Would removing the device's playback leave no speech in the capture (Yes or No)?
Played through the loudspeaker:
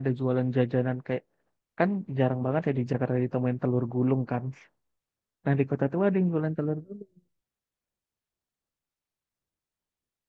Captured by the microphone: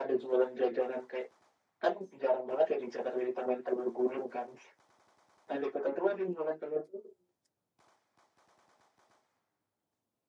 Yes